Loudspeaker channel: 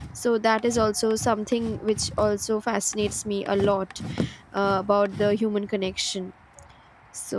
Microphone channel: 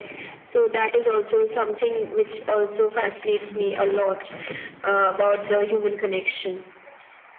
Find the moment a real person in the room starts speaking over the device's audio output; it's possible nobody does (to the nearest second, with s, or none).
3 s